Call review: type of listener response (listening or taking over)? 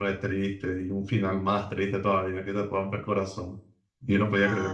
listening